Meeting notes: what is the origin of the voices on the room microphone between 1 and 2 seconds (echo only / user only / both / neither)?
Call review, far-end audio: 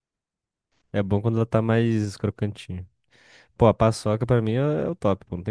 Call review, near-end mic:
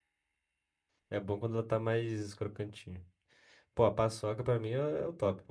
echo only